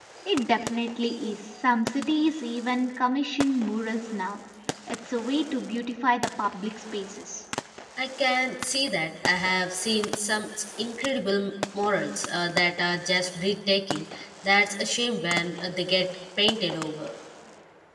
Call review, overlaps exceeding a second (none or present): none